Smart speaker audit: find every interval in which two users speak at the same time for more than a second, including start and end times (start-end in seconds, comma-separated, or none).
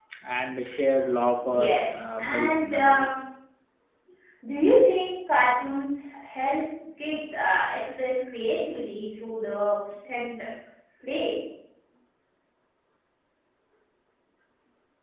1.3-3.1